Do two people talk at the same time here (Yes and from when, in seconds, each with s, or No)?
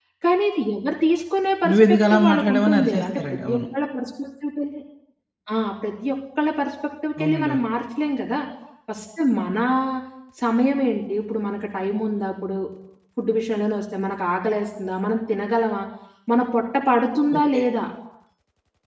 Yes, from 1.7 s